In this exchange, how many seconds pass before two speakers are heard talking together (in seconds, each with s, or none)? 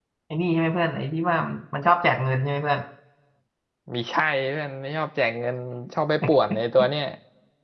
none